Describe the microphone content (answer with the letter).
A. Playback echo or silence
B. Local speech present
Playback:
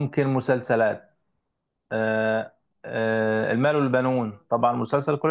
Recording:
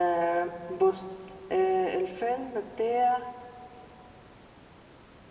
B